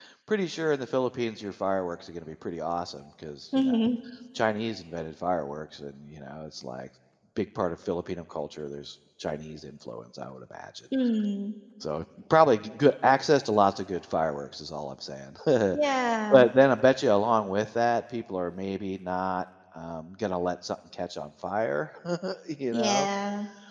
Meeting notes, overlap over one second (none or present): none